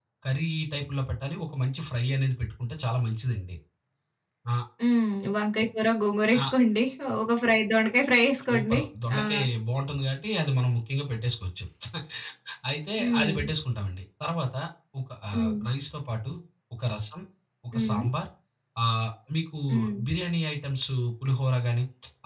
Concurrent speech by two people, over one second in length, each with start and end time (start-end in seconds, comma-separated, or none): none